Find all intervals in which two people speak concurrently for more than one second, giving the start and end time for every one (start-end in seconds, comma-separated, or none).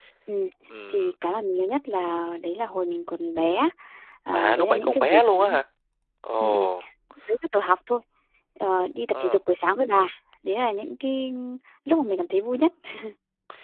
4.3-5.6